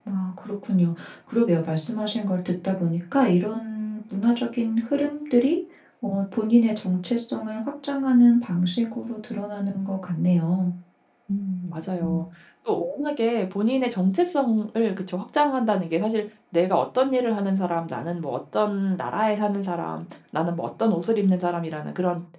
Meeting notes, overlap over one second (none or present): none